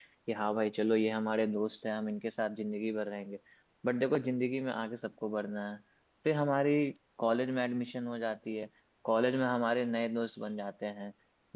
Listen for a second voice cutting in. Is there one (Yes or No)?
No